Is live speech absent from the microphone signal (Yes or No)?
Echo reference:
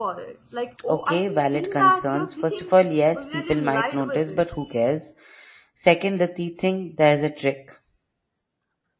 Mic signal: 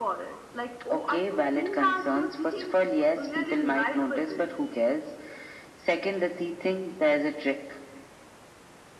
Yes